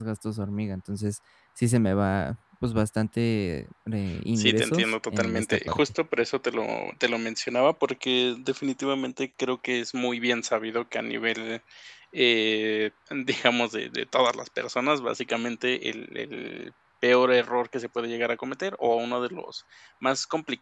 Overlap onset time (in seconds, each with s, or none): 4.4 s